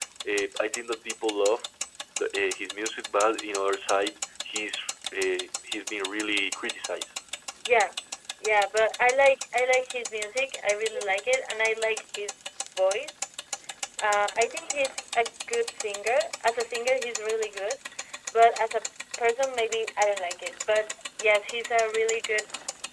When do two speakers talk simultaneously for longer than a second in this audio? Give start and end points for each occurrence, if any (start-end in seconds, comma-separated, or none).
none